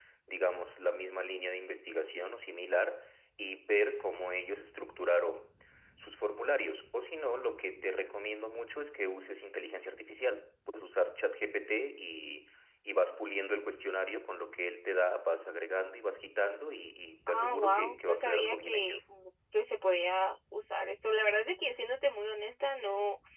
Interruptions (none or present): present